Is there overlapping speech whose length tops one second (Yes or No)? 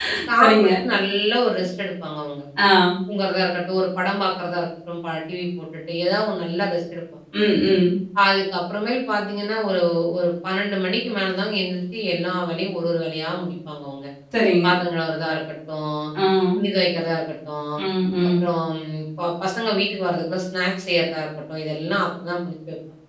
No